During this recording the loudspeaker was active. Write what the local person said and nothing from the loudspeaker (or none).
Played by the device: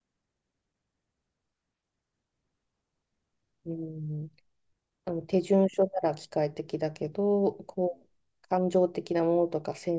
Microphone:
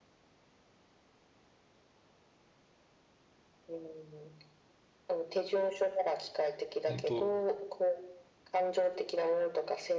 本当、